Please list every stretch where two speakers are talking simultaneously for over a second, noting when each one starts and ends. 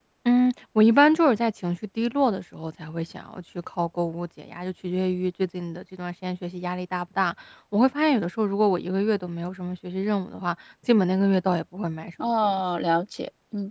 none

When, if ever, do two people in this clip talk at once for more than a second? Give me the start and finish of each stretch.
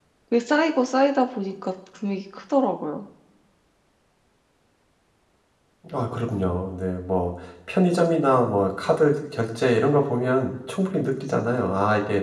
none

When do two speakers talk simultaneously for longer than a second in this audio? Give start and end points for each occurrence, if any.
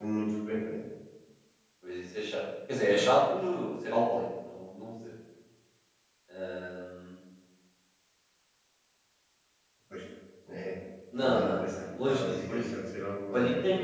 11.2-12.6

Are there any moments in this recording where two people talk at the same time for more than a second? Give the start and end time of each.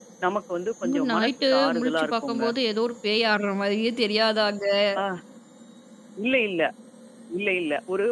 0.8-2.4

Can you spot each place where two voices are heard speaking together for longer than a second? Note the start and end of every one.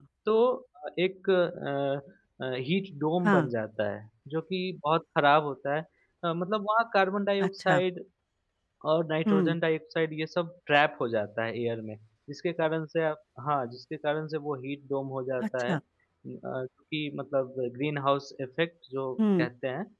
none

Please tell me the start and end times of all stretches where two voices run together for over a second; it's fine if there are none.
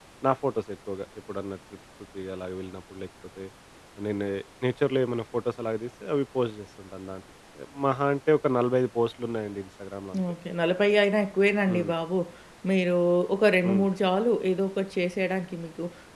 none

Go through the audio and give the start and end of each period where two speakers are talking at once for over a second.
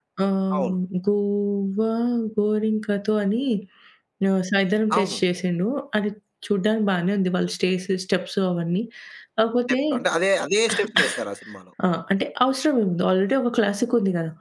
none

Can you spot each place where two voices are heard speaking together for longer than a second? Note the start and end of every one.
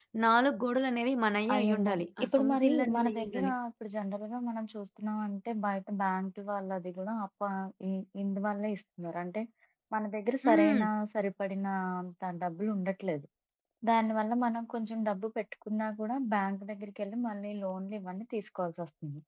1.5-3.5

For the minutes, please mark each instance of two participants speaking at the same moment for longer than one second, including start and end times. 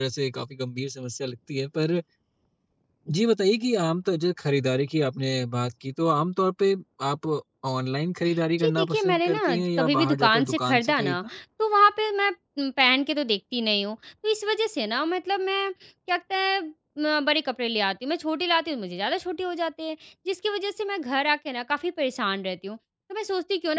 8.6-11.2

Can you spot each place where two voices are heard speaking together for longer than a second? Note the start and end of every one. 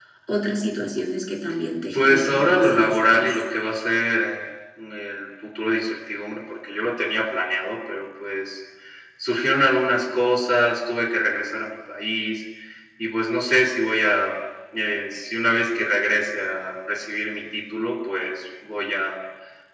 1.9-3.4

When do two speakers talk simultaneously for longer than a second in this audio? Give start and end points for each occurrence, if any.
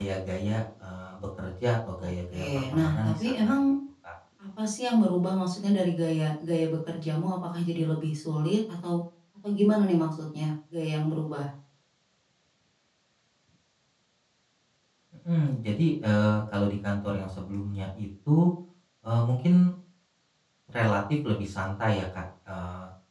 2.0-3.6

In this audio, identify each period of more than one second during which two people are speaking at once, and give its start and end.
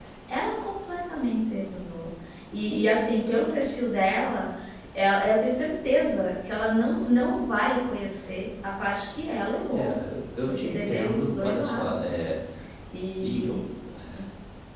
10.4-12.2

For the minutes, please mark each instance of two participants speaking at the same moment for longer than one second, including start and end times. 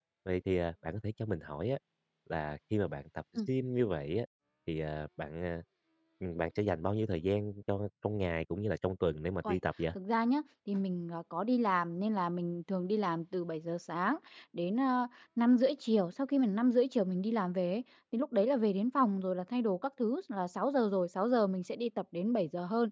none

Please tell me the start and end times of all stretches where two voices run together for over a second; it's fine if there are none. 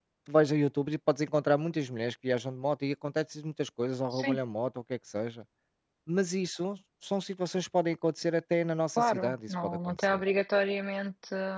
9.0-10.2

